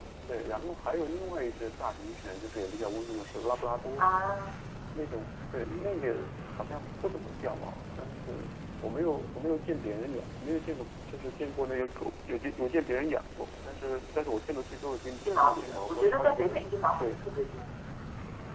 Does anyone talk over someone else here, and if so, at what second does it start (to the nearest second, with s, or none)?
15 s